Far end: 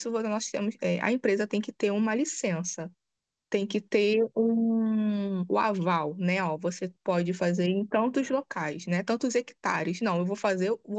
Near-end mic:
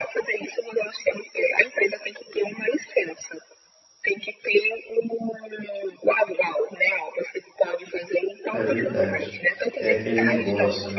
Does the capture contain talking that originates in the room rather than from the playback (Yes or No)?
Yes